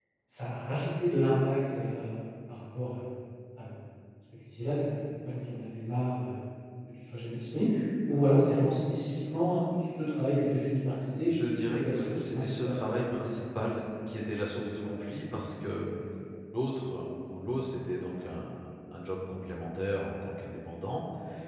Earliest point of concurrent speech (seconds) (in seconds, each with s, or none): 11.3 s